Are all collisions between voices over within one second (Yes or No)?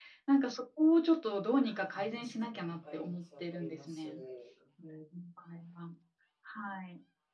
No